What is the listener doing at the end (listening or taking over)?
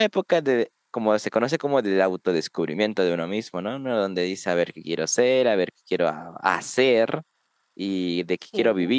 listening